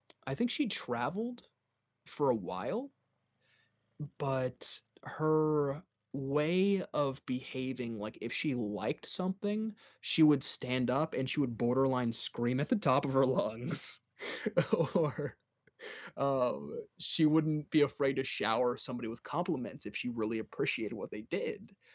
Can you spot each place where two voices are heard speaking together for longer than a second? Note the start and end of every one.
none

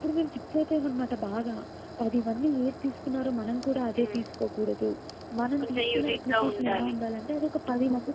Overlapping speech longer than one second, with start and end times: 5.6-7.0

